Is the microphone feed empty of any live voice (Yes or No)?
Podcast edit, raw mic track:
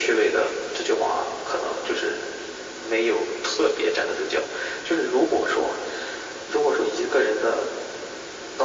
Yes